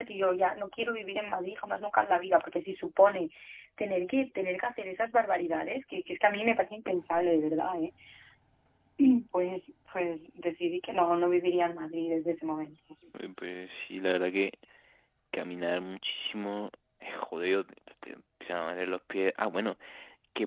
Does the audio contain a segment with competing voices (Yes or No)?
No